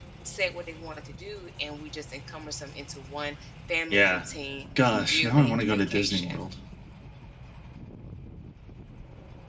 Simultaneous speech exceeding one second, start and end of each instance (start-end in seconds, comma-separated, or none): 5.0-6.4